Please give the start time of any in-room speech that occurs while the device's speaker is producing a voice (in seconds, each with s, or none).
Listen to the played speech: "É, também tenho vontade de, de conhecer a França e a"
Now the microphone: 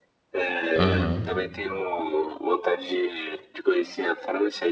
0.8 s